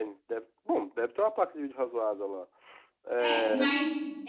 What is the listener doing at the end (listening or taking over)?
taking over